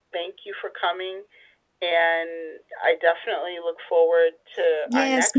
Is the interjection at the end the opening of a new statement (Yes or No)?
Yes